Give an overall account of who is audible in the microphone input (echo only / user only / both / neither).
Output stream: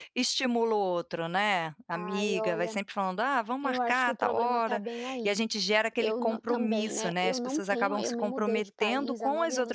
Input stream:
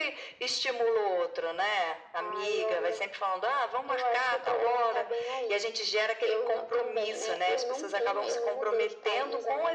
echo only